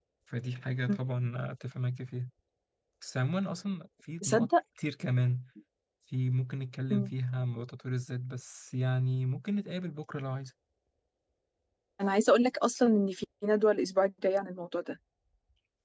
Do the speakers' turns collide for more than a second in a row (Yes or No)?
No